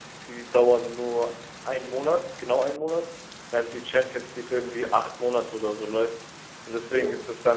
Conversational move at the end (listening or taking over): listening